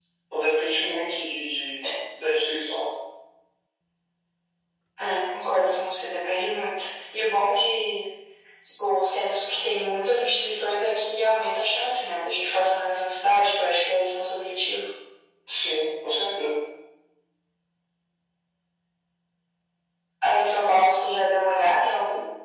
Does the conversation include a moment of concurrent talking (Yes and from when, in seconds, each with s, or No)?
No